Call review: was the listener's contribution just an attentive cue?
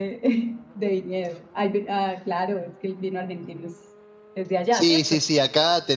No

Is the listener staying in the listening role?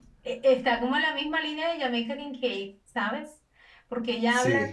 Yes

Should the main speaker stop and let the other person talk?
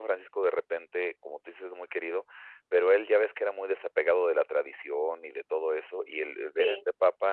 No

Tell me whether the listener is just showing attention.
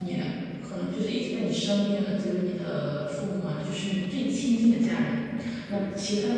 Yes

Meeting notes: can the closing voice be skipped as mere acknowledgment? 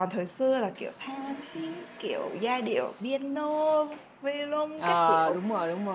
No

